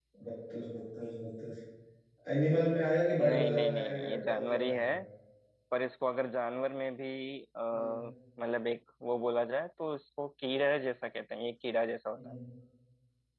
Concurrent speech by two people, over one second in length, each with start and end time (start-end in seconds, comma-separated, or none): 3.2-4.9